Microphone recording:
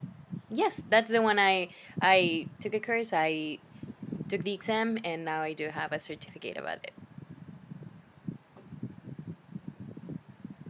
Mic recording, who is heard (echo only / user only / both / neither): user only